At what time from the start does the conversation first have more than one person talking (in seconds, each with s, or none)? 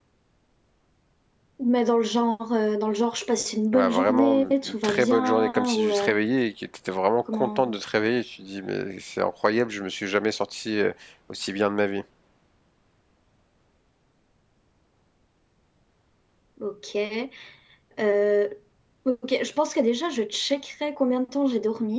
3.7 s